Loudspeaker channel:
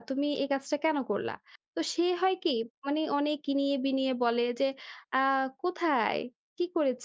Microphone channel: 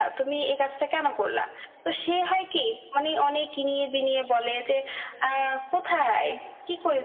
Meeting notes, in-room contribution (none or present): none